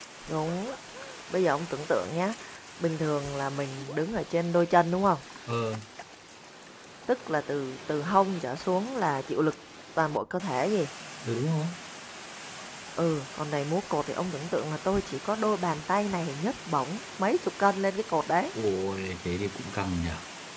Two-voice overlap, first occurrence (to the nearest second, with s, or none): none